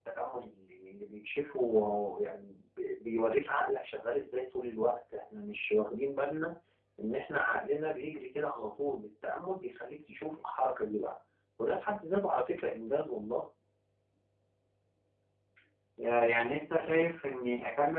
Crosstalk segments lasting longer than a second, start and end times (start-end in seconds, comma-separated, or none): none